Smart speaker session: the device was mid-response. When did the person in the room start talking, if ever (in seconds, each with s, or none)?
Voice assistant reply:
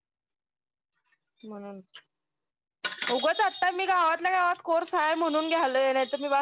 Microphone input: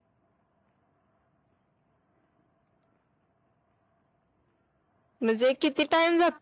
5.2 s